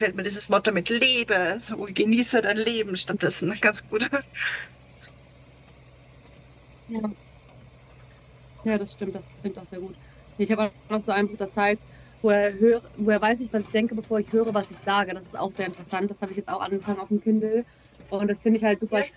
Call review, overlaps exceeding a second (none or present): none